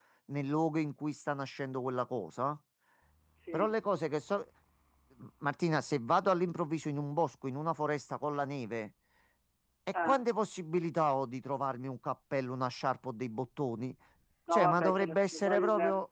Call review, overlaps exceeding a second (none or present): present